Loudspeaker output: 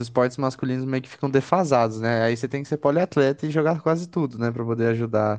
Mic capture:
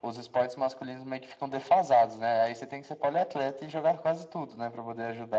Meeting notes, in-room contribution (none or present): none